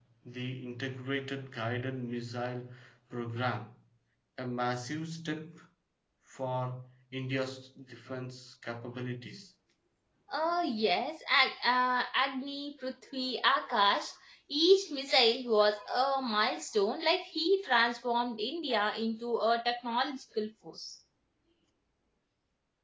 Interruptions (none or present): none